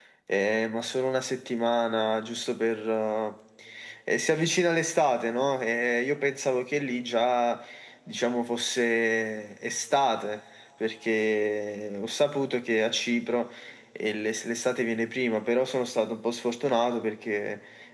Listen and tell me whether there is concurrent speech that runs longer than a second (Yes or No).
No